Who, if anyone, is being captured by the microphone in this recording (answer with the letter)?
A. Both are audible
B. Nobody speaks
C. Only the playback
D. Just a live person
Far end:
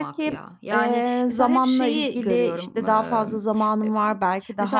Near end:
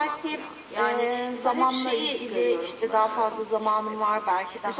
C